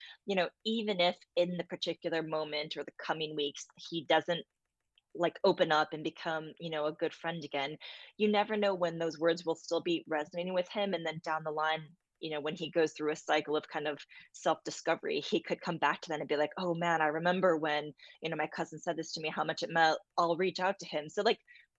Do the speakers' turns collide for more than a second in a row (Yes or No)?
No